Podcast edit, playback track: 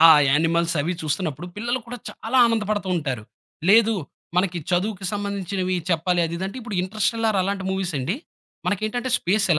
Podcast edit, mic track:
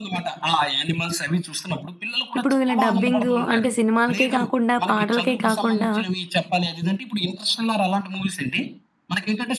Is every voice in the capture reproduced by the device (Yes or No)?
No